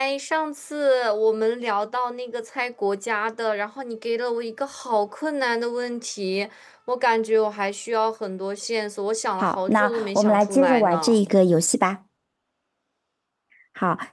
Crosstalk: present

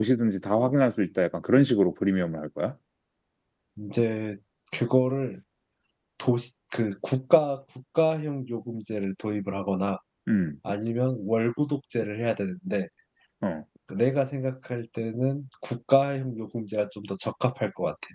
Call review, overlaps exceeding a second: none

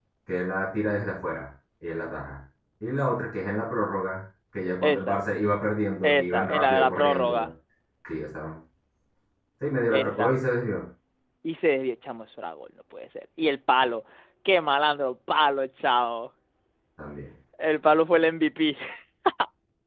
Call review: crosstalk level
present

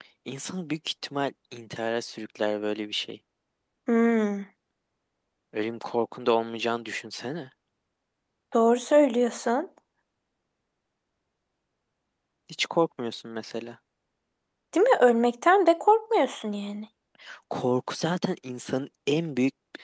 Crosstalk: none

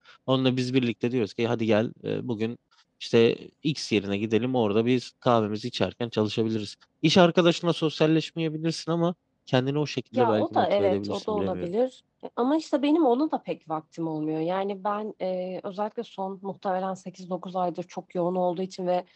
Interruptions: present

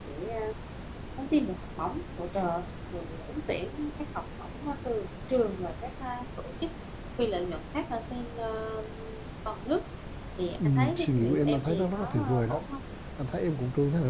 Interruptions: present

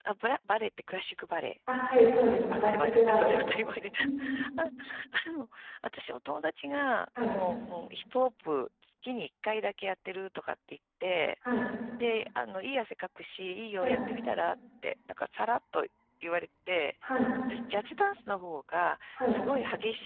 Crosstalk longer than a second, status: present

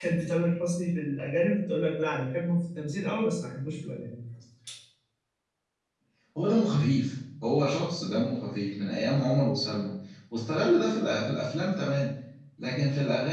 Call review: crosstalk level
none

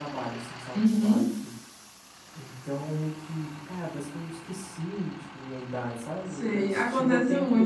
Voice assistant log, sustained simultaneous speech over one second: present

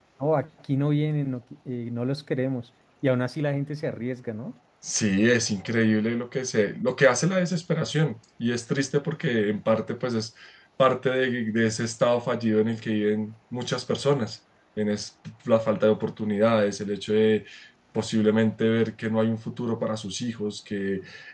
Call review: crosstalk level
none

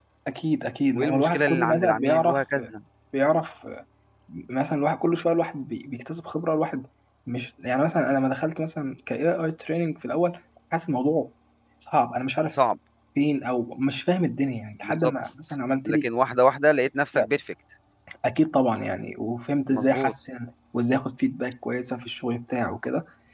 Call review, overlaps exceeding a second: present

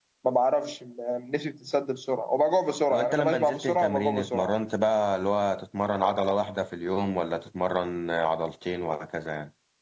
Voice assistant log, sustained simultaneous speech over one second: present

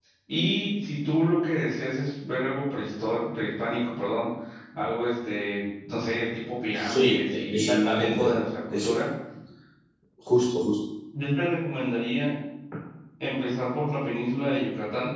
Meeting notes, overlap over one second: present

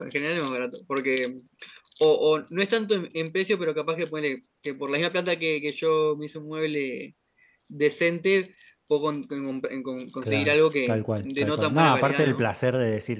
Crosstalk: present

